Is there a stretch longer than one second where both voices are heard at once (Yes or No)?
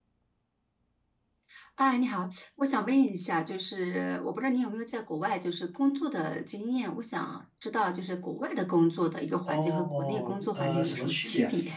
Yes